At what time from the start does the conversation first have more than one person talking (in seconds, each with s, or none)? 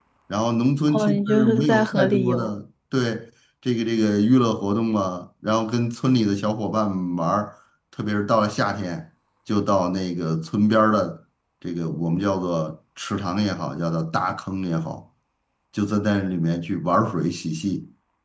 0.9 s